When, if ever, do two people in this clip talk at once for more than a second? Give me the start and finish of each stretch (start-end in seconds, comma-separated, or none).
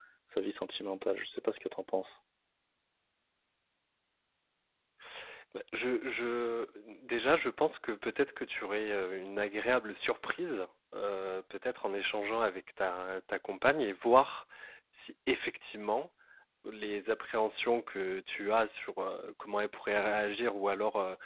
none